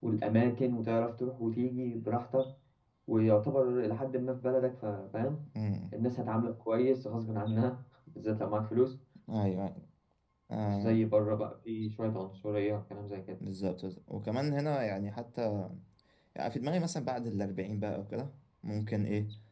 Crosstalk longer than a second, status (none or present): none